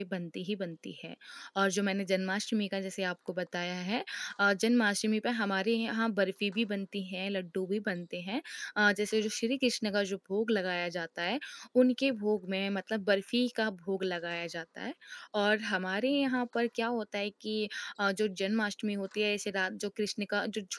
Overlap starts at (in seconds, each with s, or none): none